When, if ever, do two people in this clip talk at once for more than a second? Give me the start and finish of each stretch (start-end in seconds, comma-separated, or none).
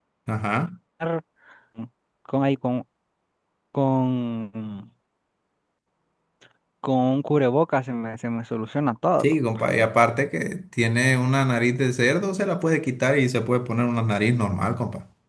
none